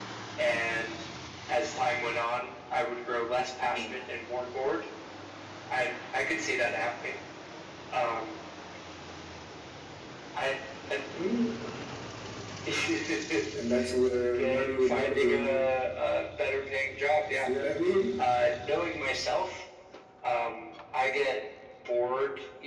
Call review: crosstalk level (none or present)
present